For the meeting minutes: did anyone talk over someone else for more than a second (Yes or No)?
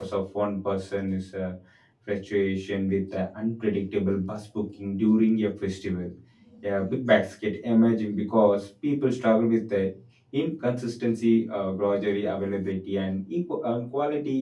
No